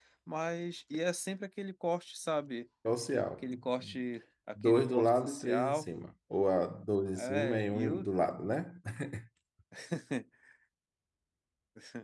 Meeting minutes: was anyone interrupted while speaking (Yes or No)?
Yes